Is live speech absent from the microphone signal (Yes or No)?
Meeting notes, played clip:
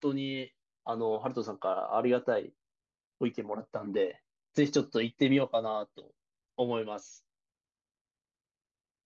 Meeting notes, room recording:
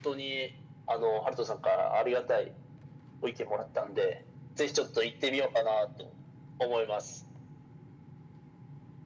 Yes